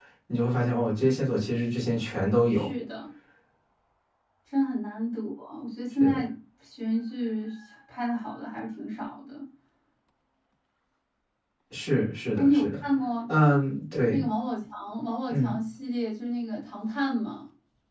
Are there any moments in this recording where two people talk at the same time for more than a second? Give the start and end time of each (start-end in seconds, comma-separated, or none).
none